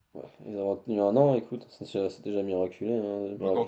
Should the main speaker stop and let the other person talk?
Yes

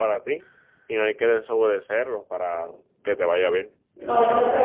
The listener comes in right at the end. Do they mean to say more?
Yes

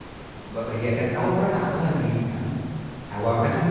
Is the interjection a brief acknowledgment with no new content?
Yes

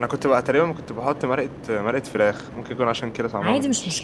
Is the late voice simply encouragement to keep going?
No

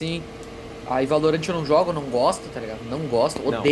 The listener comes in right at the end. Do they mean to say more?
Yes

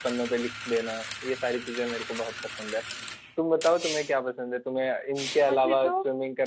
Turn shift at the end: No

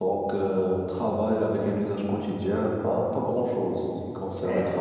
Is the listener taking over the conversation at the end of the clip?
No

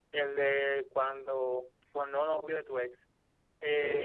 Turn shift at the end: No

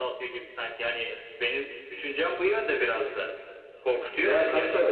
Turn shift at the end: Yes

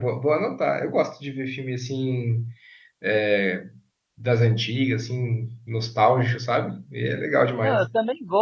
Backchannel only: No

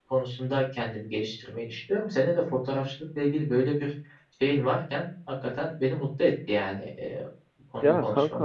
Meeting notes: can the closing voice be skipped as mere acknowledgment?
No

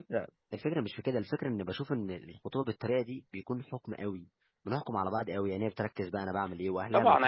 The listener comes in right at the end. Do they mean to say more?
Yes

